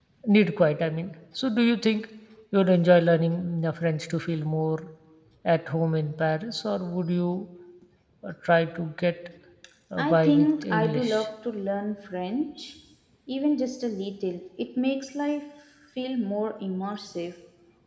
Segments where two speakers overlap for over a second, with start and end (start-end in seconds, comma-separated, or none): 10.0-11.3